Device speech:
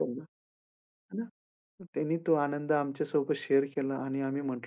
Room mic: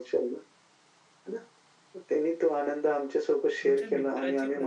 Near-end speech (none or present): present